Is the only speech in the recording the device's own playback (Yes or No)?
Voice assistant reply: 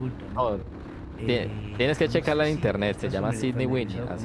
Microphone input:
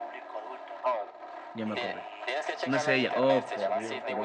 No